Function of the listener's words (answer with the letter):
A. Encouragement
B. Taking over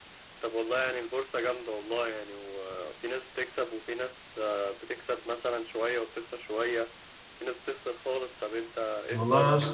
B